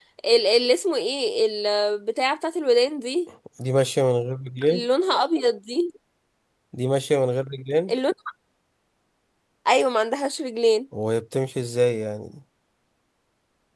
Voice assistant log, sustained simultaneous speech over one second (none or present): none